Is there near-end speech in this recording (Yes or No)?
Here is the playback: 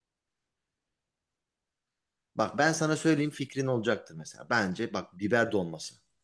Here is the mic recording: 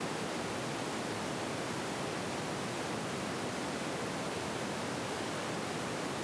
No